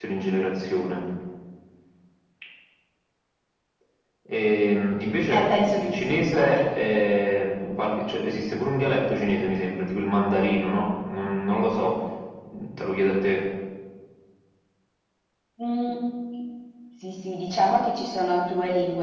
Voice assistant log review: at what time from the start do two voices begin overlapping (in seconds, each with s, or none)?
5.3 s